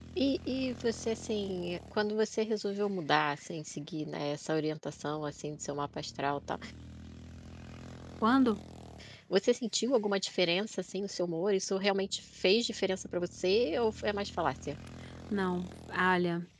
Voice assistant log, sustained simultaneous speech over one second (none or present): none